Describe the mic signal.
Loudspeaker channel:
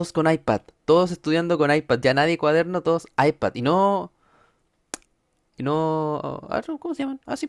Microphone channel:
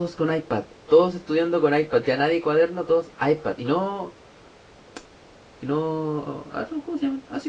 echo only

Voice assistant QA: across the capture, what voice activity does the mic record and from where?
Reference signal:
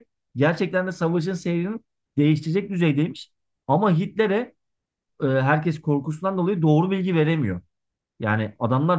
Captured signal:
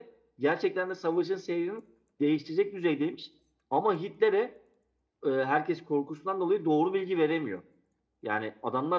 echo only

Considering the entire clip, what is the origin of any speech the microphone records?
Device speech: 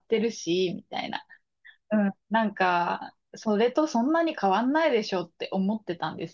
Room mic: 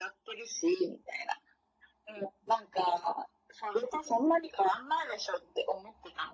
echo only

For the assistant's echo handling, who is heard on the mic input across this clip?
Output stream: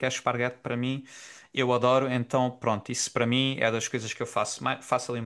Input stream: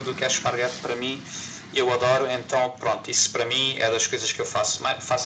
echo only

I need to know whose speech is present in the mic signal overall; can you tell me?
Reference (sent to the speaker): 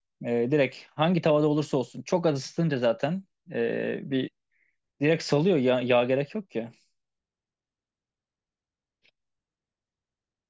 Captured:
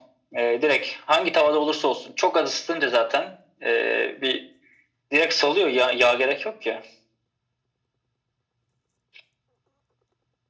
echo only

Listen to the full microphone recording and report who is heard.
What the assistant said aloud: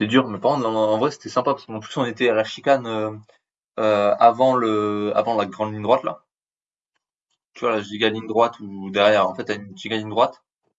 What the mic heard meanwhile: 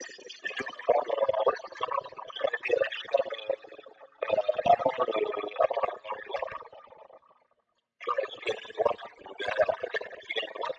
echo only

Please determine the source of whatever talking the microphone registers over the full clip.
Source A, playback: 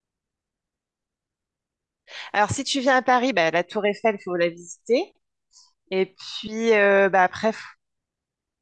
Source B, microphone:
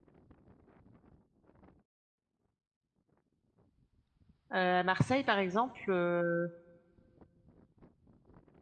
user only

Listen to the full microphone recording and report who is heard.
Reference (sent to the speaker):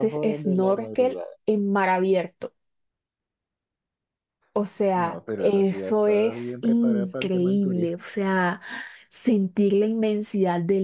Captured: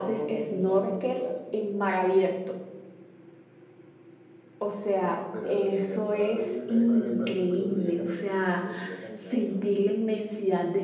both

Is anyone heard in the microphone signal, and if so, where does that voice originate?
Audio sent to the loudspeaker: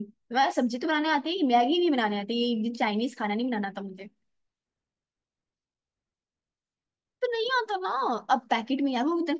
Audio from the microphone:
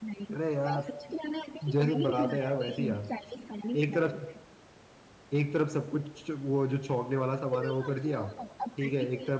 both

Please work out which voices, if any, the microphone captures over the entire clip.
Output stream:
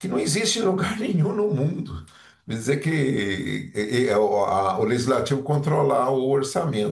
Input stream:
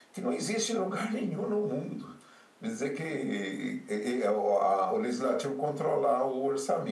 echo only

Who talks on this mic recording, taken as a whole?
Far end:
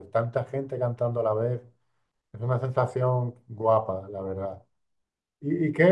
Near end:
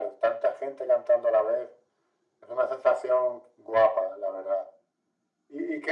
echo only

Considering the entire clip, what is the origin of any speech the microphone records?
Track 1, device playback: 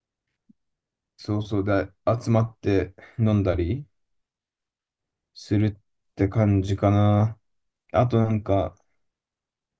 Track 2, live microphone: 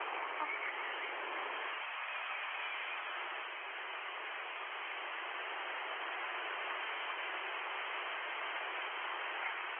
neither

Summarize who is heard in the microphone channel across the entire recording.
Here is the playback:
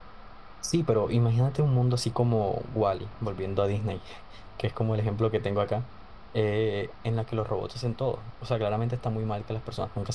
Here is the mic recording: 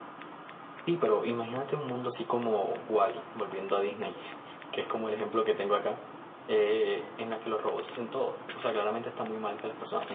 echo only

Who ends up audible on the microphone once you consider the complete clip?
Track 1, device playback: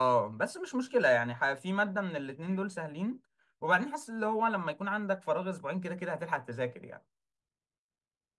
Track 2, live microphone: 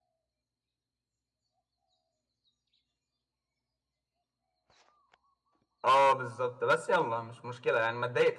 user only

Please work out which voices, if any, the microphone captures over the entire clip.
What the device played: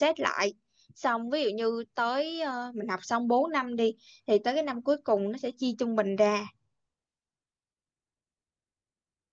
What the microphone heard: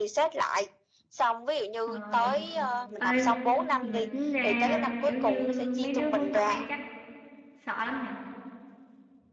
both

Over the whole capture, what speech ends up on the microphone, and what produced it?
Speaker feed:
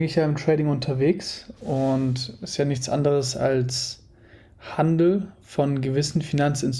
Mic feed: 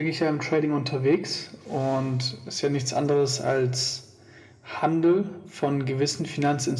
echo only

